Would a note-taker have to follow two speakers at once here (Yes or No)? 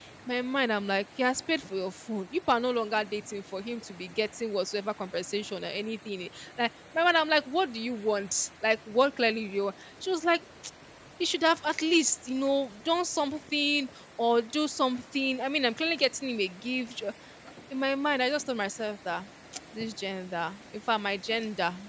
No